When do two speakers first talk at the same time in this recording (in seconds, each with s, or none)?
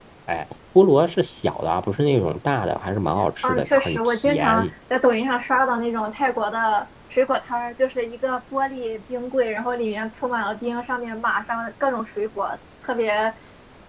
3.4 s